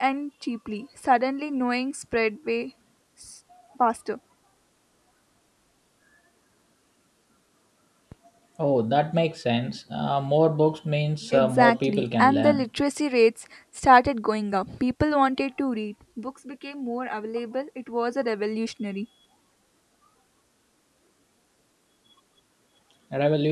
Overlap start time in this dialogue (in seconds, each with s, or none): 11.3 s